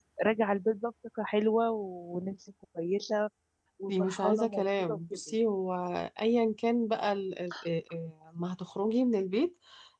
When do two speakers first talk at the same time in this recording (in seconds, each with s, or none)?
3.9 s